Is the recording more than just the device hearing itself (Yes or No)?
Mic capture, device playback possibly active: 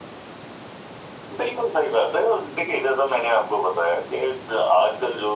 No